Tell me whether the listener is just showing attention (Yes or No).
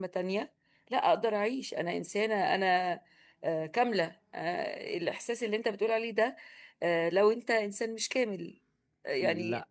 Yes